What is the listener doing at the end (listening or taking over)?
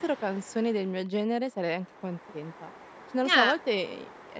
listening